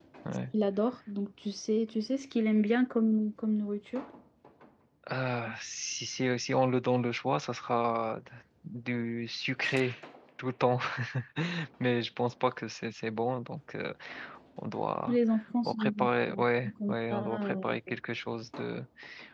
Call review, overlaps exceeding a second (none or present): present